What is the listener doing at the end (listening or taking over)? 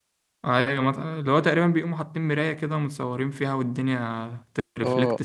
taking over